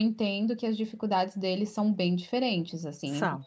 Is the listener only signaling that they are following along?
Yes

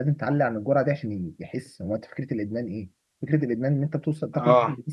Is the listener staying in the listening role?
Yes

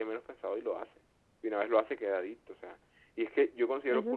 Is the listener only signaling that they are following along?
Yes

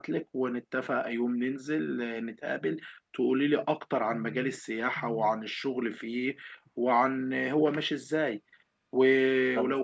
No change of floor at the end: Yes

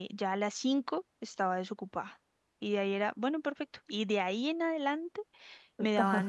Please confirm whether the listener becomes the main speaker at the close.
No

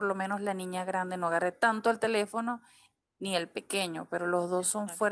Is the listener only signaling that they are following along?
Yes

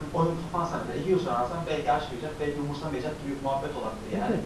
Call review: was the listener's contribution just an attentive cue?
No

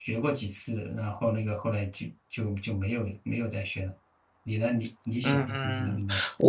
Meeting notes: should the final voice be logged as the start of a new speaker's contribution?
Yes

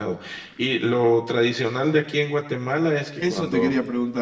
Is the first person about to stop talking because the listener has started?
Yes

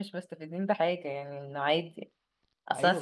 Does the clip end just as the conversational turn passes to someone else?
No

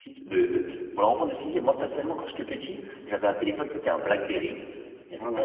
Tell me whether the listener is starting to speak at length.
No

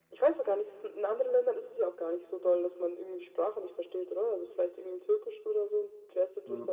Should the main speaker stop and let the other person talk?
Yes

